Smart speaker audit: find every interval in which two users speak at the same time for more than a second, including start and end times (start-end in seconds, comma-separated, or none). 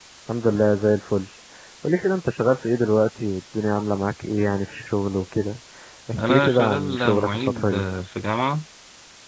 6.2-7.8